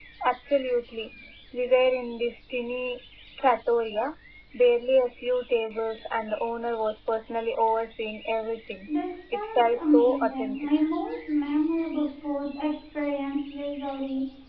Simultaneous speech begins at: 9.3 s

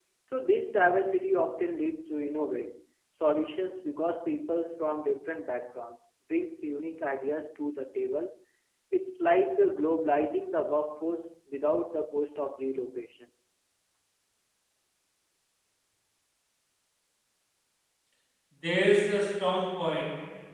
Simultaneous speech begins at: none

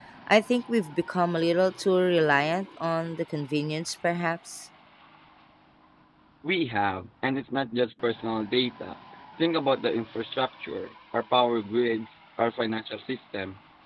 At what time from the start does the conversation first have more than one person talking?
none

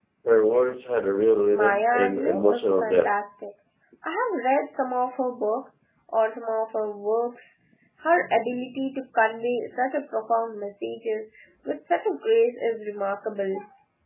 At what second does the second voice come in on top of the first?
1.5 s

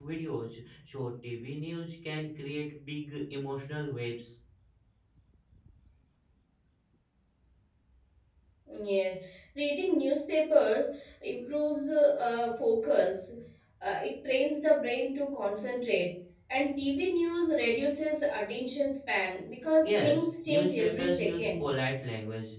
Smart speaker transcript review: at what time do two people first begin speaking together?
19.8 s

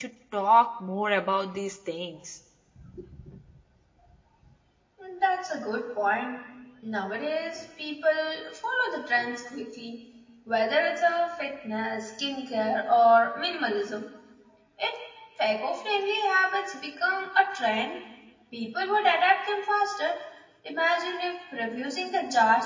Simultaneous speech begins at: none

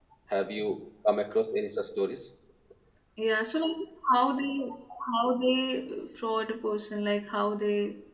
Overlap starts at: none

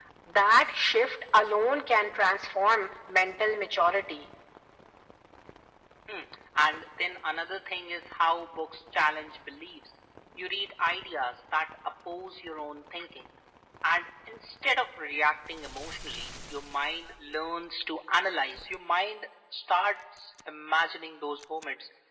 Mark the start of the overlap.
none

